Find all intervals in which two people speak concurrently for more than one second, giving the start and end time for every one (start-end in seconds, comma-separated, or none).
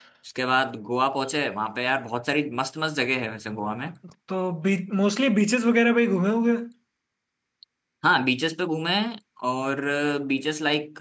none